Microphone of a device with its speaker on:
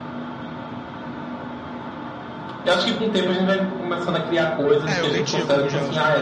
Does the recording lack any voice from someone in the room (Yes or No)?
No